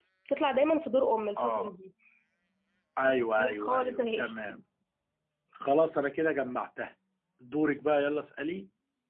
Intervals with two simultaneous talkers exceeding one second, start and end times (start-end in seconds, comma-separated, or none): 3.0-4.3